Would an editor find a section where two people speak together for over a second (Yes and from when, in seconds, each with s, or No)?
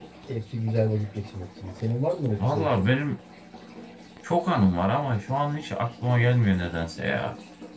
No